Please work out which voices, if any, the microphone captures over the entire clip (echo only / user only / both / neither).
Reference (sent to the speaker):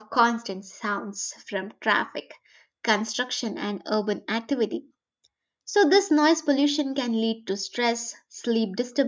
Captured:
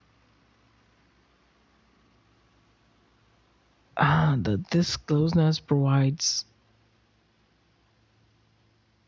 user only